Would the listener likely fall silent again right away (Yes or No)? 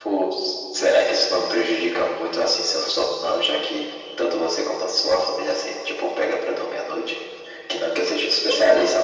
Yes